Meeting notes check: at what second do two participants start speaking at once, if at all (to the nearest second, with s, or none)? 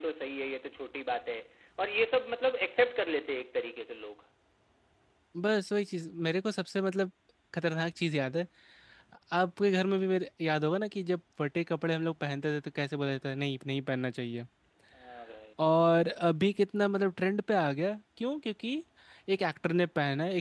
none